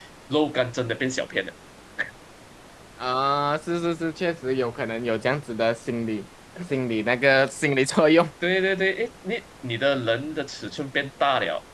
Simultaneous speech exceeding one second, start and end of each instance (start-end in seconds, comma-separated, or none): none